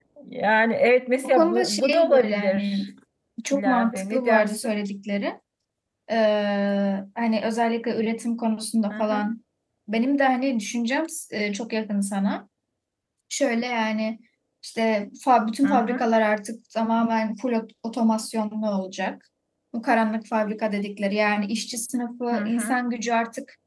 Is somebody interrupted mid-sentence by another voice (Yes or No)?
Yes